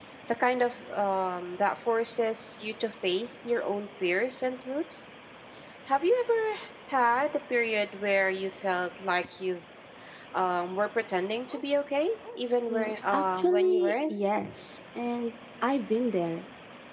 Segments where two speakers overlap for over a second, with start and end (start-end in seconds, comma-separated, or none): 12.7-14.1